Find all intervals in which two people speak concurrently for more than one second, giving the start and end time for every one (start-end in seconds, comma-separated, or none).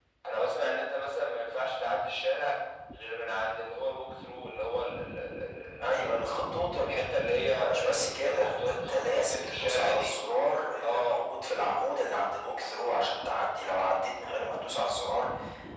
7.5-10.1